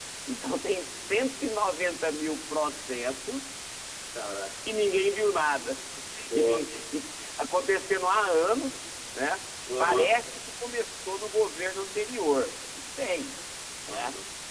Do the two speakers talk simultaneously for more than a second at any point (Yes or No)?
No